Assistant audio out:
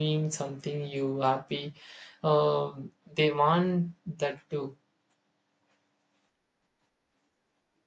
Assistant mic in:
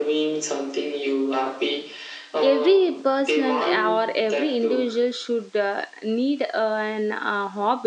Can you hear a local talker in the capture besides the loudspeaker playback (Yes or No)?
Yes